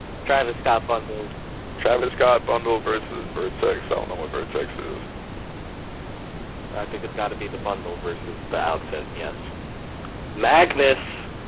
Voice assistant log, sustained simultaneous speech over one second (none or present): none